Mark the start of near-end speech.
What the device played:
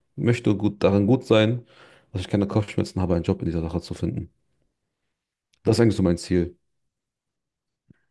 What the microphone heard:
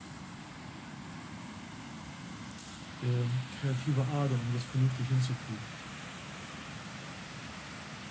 3.0 s

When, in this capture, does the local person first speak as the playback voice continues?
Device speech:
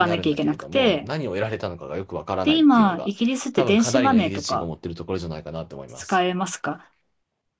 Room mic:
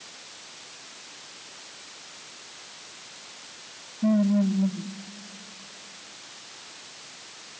4.0 s

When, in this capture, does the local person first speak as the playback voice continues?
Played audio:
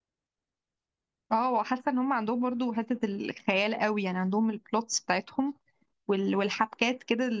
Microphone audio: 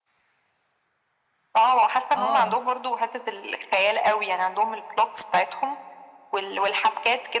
2.1 s

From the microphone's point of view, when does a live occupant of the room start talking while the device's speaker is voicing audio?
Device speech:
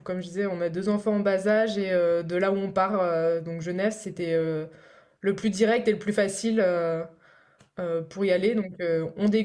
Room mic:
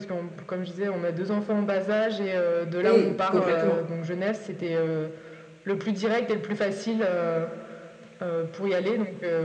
2.8 s

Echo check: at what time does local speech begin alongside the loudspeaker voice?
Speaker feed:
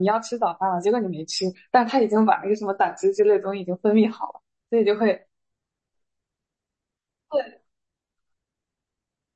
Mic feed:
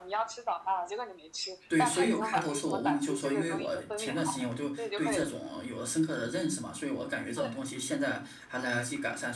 1.7 s

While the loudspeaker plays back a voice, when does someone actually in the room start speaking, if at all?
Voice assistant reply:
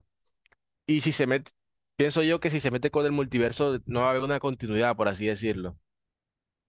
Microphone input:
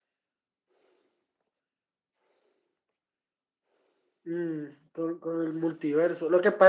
4.2 s

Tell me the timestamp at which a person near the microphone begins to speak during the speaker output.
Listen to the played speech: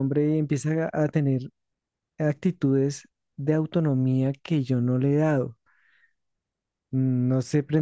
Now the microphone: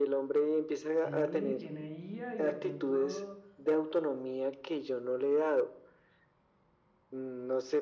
0.8 s

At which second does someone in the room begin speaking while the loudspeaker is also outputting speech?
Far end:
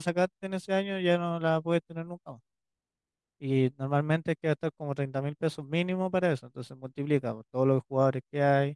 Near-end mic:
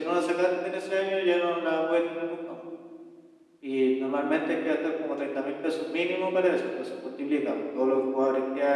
none

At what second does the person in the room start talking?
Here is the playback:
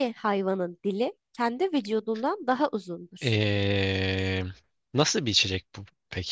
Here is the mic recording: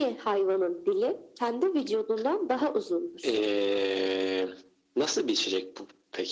none

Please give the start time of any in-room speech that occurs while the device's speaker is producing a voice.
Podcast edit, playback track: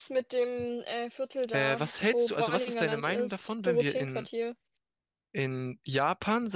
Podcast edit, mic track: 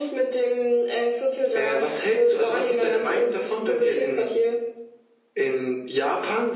none

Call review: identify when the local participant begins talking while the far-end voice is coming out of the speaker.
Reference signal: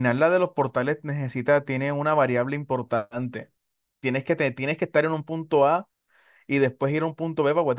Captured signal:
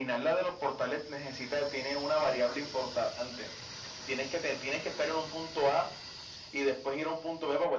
none

